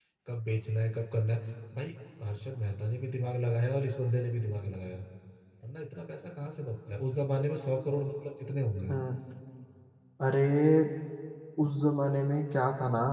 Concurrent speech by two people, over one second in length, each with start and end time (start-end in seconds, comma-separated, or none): none